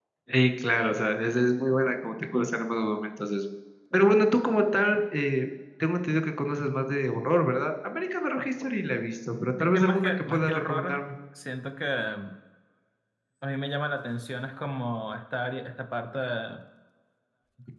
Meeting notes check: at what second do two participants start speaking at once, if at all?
9.7 s

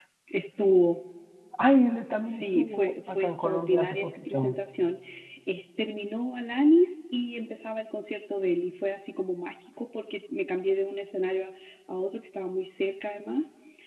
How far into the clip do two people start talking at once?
2.2 s

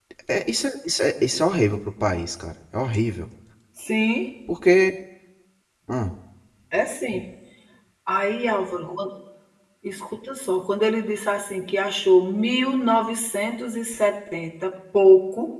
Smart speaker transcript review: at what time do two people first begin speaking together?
none

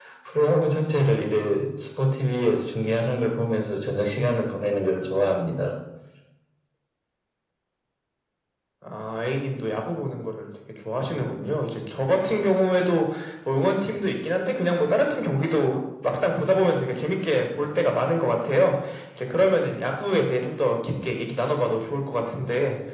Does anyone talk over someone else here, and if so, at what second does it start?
none

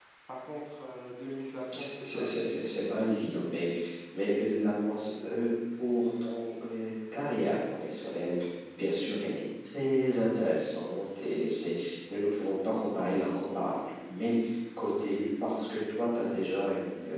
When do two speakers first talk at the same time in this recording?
1.7 s

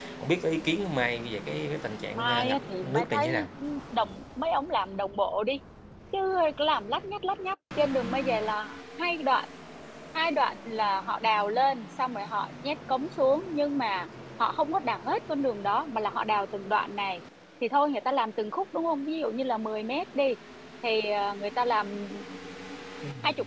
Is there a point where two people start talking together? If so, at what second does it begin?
2.1 s

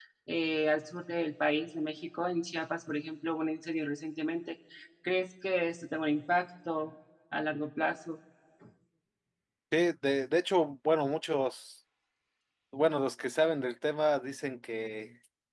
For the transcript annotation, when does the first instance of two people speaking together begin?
none

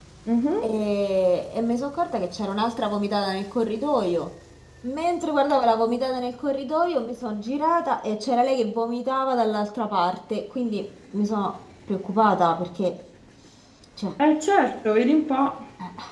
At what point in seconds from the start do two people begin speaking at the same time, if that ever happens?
none

